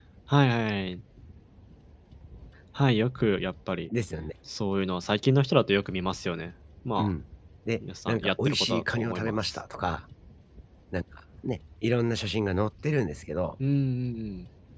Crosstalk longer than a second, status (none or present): present